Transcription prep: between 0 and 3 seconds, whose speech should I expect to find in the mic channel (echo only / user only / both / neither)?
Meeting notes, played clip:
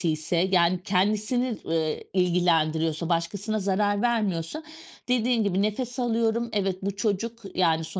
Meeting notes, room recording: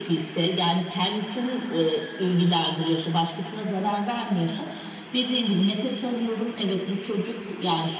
echo only